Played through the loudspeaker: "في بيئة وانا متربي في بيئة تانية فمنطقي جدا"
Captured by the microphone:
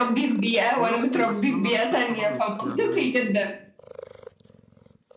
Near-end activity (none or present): present